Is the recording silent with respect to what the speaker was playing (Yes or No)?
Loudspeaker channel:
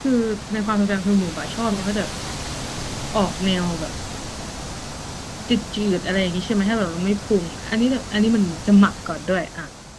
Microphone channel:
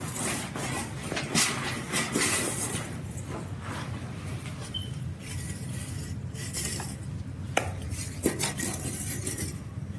Yes